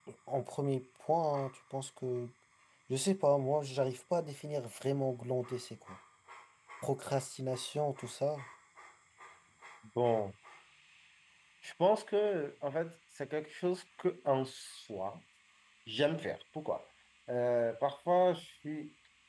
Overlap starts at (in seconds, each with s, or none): none